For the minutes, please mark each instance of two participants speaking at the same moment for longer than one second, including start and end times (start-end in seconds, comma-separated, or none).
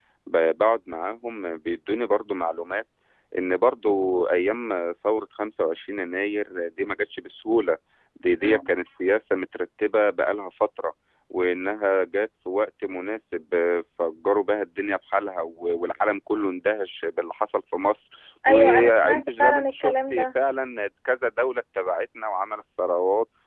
18.5-20.2